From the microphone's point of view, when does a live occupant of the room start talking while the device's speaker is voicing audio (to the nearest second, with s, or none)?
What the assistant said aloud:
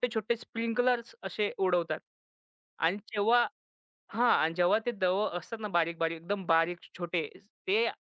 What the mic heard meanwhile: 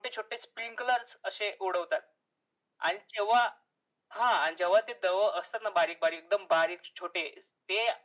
none